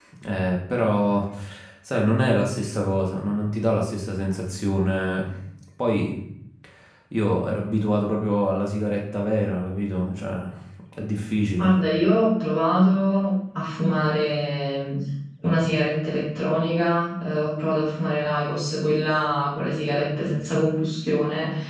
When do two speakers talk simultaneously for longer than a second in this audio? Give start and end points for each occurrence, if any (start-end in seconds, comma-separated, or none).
none